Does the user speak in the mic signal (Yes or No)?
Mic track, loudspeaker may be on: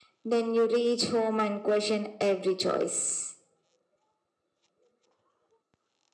No